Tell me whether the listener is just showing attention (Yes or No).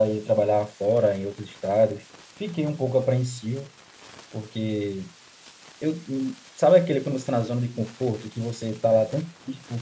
Yes